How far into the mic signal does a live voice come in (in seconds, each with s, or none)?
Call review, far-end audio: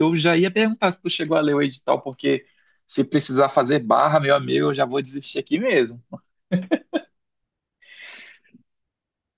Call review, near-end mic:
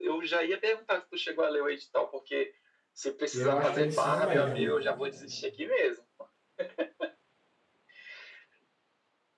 3.3 s